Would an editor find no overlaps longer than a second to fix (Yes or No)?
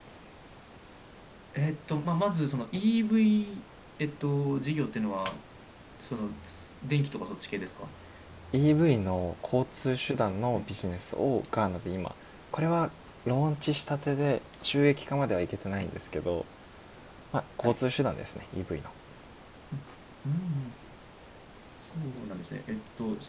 Yes